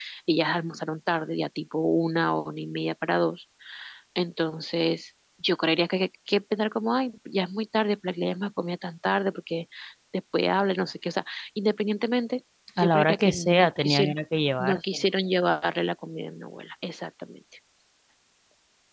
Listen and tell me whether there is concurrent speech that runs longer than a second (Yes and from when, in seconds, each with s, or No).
Yes, from 12.8 s